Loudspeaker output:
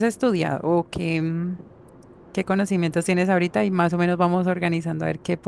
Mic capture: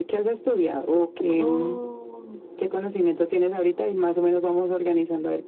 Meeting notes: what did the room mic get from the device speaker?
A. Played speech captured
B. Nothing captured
A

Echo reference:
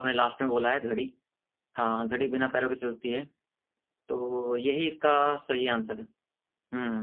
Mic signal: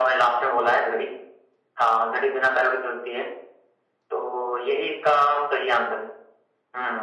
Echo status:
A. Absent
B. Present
B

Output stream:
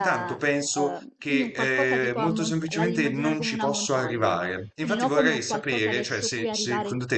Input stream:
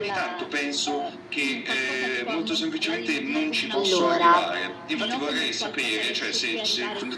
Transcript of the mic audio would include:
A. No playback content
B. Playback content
B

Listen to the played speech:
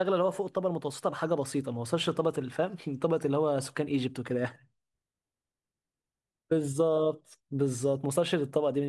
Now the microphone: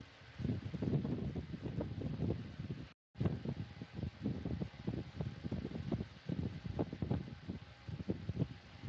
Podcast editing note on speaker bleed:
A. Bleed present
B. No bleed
B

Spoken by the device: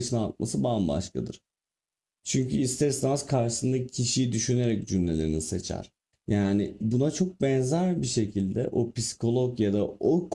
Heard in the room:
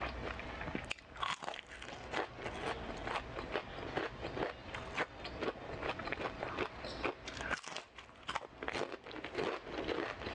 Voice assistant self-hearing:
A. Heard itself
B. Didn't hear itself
B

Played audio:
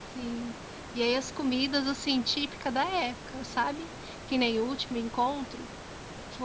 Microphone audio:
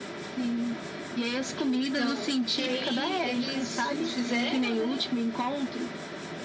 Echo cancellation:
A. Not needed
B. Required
B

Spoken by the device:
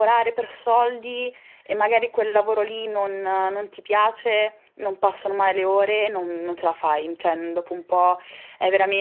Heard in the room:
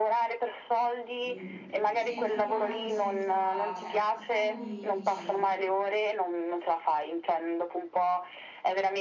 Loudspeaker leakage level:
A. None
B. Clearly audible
B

